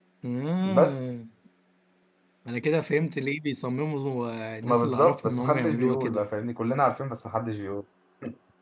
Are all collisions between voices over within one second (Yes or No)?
No